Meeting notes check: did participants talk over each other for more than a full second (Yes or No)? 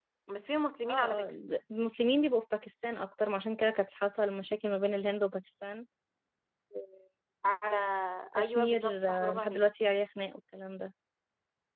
Yes